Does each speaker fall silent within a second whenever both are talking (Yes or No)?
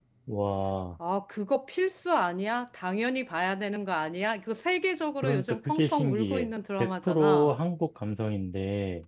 No